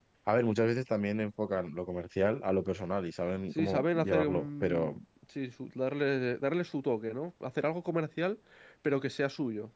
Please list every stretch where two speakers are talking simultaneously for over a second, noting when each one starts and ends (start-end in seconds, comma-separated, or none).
3.5-5.0